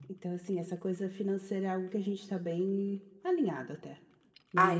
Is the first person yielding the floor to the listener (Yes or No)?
Yes